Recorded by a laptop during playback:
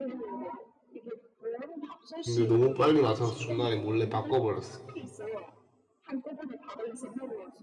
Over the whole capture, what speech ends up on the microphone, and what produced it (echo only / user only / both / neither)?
both